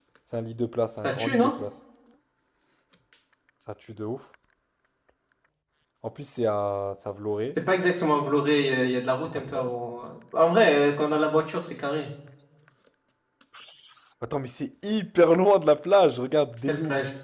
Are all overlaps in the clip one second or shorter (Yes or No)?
Yes